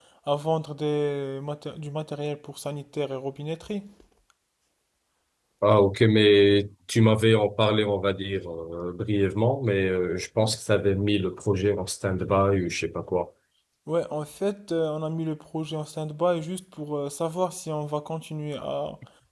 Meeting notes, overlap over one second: none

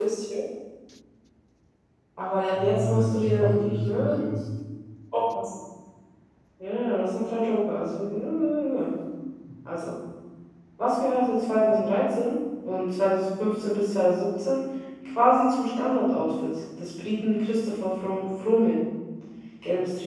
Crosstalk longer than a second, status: present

